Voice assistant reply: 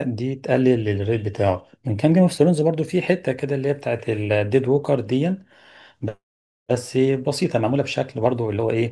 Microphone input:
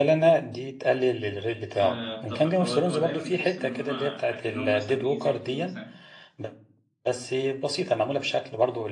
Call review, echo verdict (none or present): present